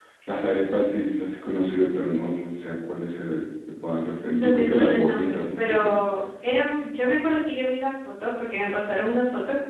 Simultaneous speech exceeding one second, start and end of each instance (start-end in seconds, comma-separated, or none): 4.3-6.0